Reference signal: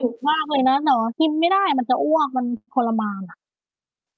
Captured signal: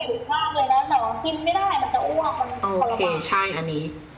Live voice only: โอเค ใช่ อันนี้

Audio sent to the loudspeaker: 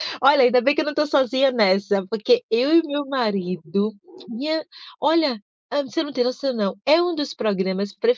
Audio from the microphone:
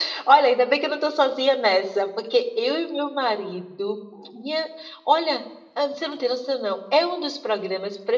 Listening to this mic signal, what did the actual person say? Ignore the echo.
none

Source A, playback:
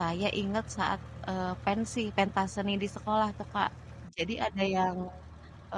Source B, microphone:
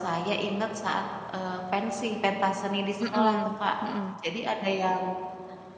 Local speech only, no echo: Mhm, mhm.

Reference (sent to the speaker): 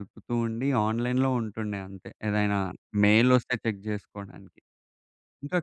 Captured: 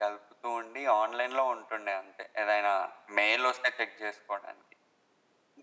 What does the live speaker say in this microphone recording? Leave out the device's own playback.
none

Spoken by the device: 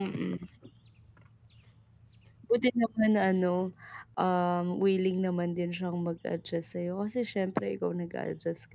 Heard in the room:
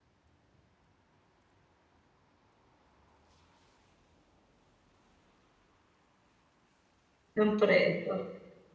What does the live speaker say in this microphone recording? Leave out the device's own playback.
ng presyo.

